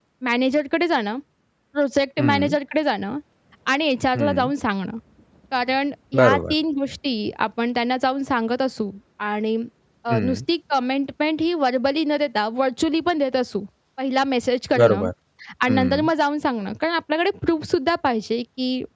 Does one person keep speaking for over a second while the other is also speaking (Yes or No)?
No